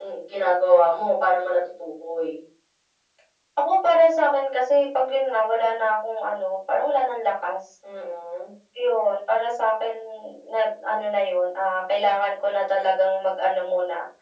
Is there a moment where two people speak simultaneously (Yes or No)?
No